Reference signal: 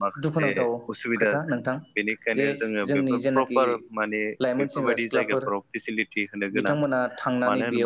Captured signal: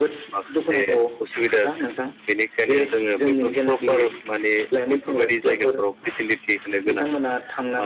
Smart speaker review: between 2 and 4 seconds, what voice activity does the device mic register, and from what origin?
echo only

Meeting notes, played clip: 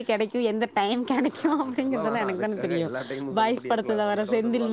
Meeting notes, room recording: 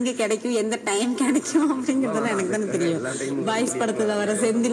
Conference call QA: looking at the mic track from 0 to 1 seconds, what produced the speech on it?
echo only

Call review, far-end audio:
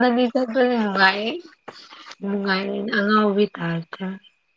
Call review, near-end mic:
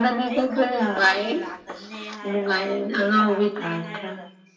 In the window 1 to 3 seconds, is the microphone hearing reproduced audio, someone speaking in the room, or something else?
both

